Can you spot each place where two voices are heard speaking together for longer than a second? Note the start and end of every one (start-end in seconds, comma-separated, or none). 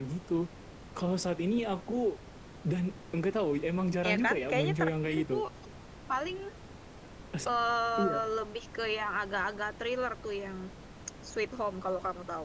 4.0-5.4